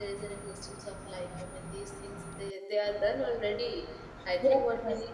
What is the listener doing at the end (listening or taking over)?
listening